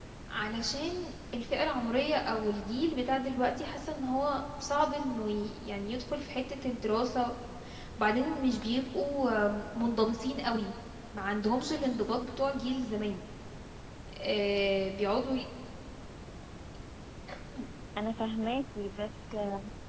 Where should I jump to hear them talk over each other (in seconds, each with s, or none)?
none